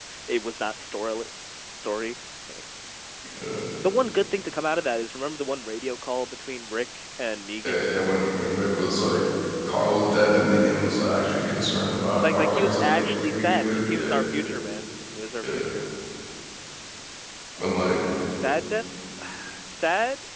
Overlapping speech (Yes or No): Yes